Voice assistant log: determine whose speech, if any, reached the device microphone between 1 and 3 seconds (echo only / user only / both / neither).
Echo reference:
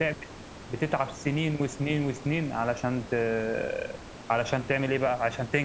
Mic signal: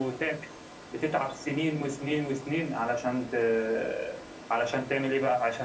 echo only